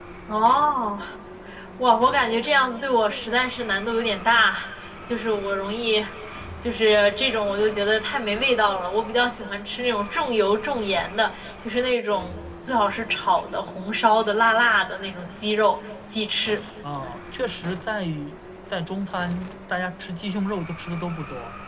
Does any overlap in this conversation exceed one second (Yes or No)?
No